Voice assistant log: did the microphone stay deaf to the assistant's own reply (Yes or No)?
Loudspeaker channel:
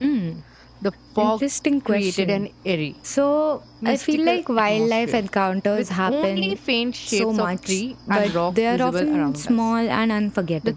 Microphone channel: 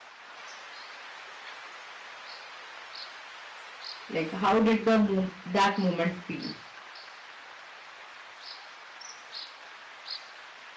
Yes